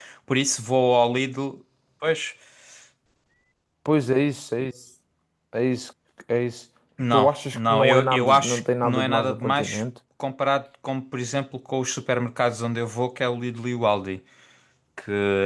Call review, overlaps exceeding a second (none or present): present